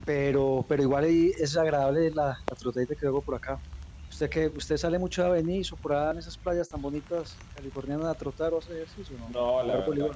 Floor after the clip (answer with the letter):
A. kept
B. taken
B